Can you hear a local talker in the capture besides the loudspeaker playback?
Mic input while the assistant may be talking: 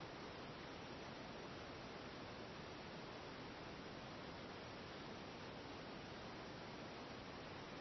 No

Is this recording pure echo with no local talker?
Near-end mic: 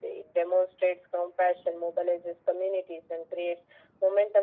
Yes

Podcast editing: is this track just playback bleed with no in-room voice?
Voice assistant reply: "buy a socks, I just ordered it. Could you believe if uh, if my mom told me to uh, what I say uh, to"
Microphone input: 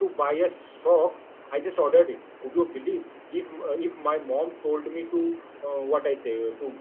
Yes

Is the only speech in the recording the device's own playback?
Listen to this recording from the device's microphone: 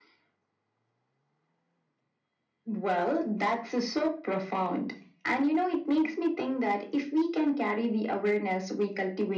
Yes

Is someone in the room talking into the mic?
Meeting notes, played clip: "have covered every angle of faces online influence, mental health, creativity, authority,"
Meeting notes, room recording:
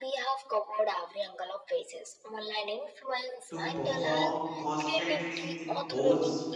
Yes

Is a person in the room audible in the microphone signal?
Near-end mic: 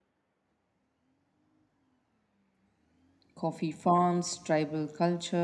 Yes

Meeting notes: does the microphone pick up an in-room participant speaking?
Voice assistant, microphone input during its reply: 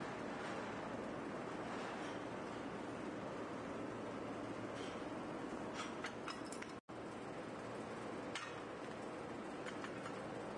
No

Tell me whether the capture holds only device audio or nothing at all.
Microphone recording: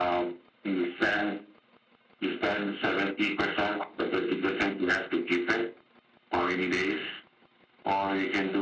Yes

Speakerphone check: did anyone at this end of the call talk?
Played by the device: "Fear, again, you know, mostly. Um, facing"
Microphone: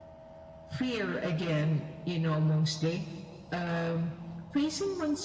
No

